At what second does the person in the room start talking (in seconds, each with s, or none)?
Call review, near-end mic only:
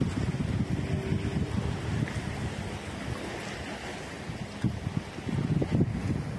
none